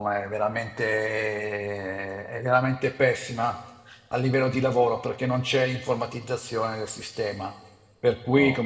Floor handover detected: No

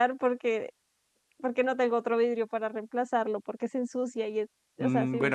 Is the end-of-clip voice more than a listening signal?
Yes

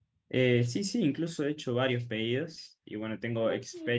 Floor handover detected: Yes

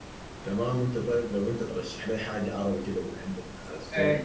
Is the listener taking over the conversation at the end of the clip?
Yes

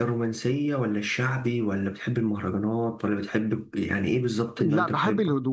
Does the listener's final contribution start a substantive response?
Yes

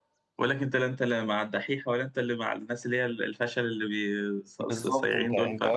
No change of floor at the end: No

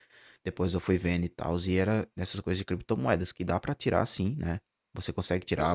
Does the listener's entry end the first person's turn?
No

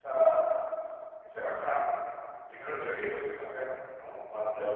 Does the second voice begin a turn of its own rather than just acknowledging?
No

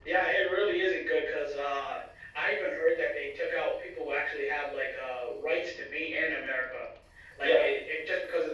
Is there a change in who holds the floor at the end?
No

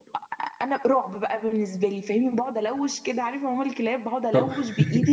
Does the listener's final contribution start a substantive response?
No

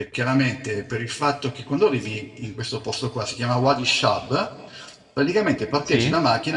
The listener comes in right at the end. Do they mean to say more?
No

